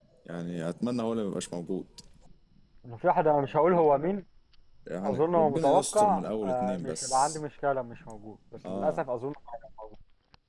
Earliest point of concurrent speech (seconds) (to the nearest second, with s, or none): 5 s